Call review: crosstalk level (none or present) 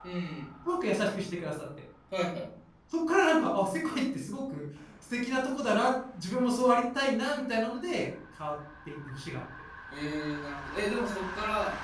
none